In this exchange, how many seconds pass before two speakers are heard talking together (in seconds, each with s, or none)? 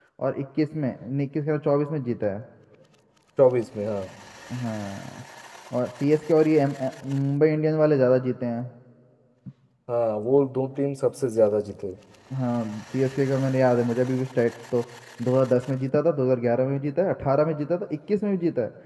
none